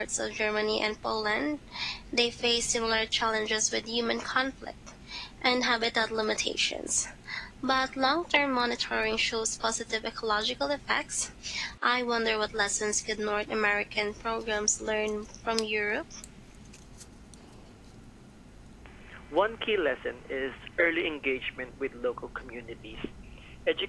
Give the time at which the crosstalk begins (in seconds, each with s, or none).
none